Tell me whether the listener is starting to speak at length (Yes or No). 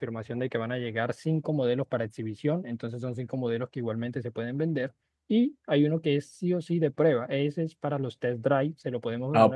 Yes